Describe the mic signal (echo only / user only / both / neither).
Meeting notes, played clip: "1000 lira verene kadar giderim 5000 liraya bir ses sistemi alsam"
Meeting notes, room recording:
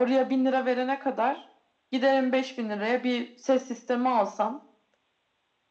echo only